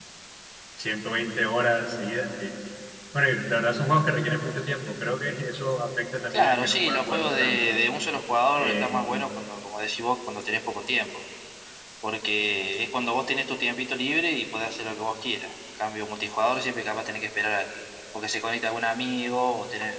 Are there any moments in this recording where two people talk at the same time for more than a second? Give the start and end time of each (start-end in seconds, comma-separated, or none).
6.3-7.6